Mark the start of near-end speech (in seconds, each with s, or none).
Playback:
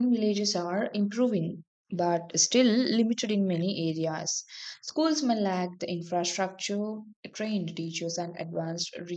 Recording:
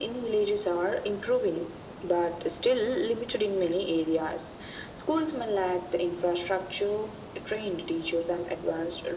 none